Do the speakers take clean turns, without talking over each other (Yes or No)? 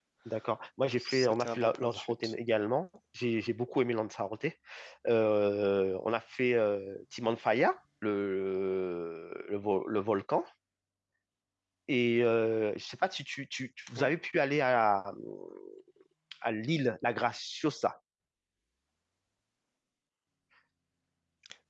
No